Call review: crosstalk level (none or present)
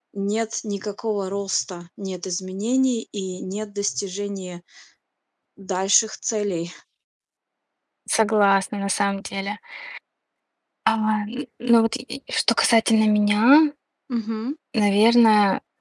none